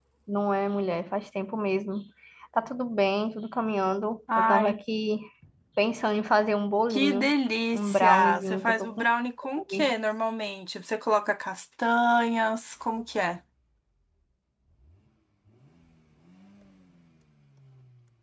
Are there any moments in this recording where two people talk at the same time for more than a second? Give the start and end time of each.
7.7-9.1

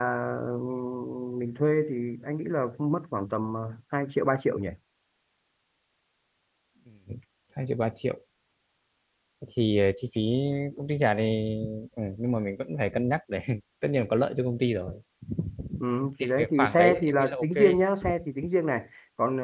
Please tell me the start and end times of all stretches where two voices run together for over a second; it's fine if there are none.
16.2-17.6

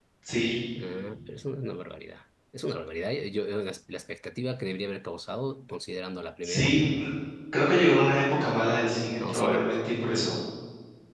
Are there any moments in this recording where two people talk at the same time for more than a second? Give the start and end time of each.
none

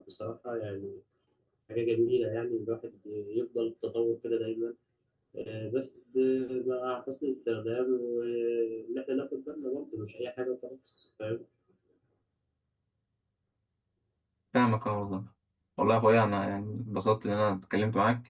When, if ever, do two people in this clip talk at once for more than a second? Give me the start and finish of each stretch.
none

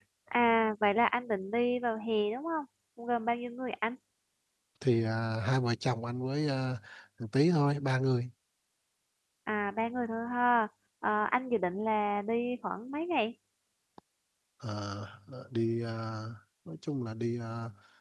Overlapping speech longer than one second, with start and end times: none

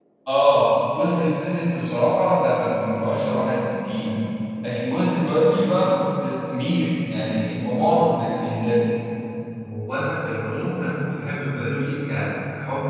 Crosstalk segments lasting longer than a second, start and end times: none

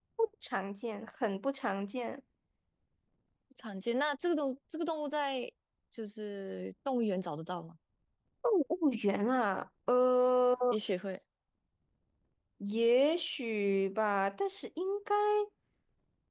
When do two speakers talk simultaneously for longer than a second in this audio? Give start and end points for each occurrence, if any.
none

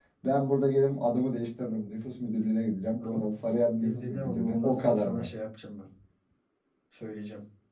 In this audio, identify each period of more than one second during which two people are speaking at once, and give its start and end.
3.8-5.3

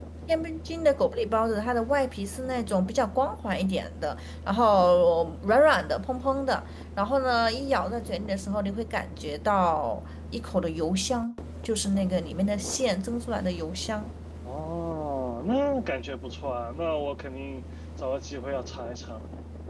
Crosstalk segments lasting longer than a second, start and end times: none

